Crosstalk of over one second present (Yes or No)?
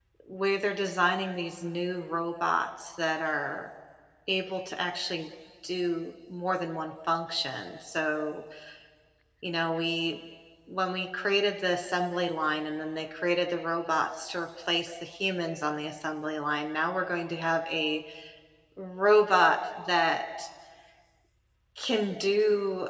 No